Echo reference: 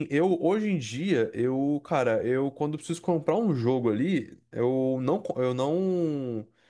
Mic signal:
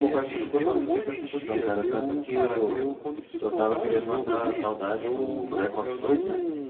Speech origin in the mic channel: both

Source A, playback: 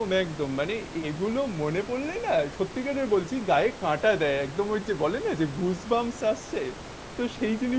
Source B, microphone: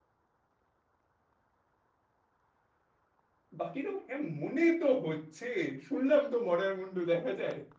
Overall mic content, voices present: user only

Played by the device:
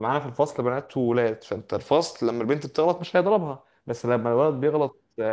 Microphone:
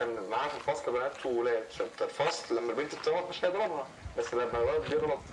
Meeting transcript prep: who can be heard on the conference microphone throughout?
echo only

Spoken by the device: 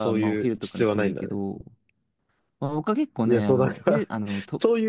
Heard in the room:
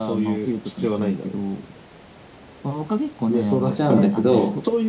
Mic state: both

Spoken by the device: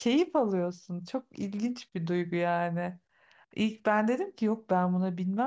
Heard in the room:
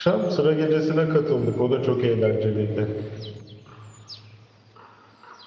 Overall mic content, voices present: user only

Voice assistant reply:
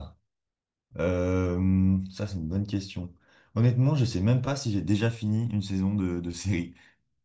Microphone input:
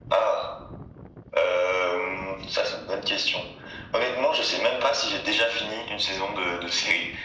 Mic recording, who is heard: echo only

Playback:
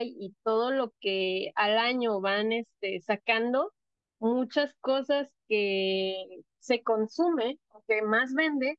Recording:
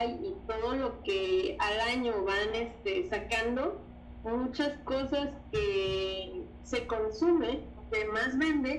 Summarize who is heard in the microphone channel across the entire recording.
echo only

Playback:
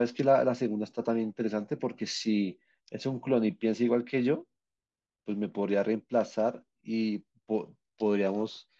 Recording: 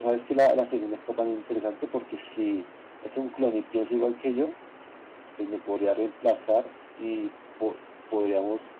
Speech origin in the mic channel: echo only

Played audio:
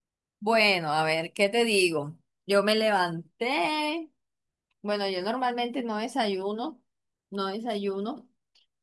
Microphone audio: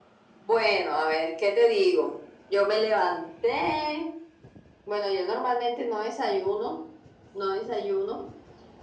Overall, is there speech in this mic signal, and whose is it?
echo only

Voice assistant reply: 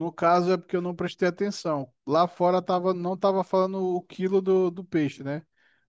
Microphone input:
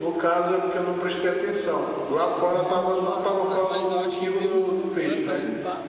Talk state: both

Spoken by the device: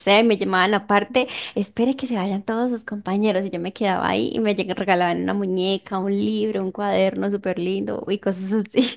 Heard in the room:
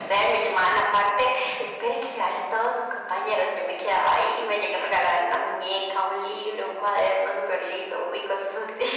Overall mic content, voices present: echo only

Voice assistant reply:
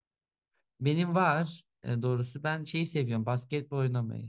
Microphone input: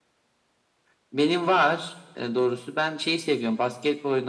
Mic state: echo only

